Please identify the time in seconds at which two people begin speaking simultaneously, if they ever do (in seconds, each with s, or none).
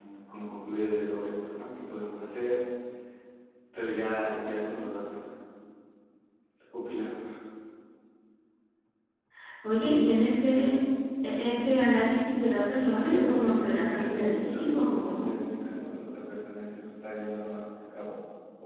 12.9 s